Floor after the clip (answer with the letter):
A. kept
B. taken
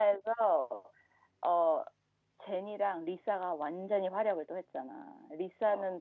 A